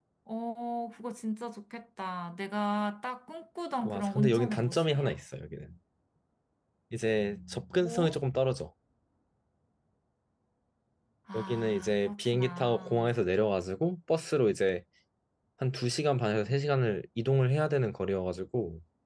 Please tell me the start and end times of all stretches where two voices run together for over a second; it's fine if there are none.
3.8-5.1, 11.3-13.1

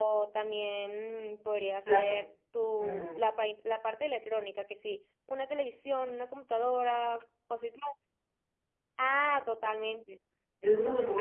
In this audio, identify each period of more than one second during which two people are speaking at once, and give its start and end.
none

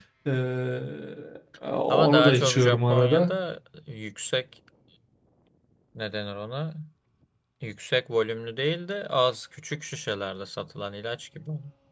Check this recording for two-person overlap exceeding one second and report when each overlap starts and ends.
1.9-3.3

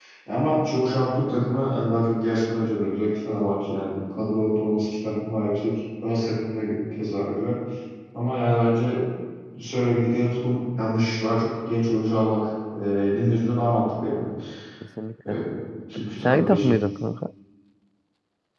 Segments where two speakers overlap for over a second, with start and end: none

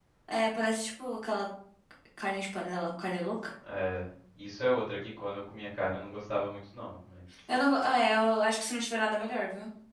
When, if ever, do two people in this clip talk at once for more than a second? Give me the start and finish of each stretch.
none

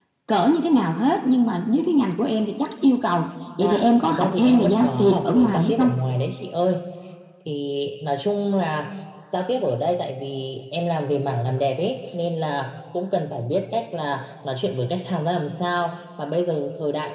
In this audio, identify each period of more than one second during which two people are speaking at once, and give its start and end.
3.6-5.9

